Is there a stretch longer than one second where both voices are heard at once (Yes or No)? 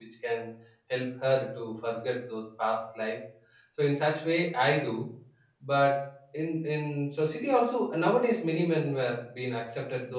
No